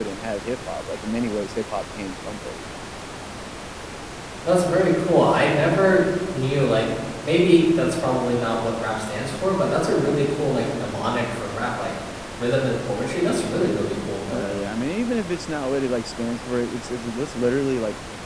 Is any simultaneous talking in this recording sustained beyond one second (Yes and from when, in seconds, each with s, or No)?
No